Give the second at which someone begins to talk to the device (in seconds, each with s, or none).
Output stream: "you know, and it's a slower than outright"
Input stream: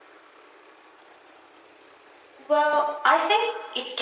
2.4 s